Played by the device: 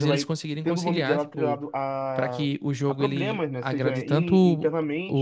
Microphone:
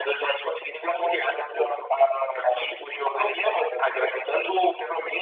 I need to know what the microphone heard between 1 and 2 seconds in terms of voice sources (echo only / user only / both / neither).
echo only